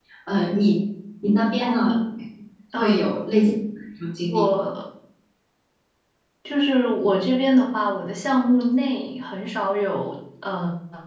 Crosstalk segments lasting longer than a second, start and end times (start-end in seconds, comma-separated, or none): none